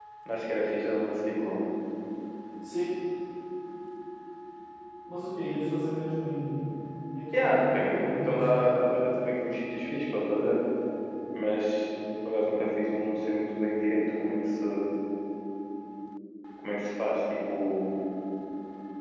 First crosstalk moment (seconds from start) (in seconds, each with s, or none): 7.3 s